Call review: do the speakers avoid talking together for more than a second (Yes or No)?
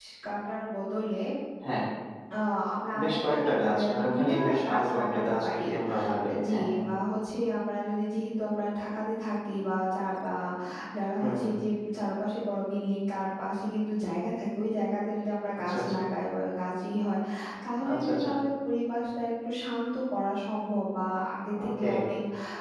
No